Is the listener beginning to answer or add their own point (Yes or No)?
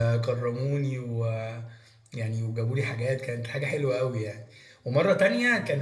No